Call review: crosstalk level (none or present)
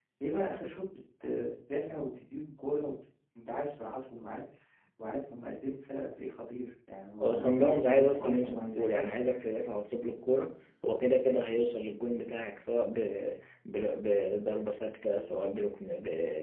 present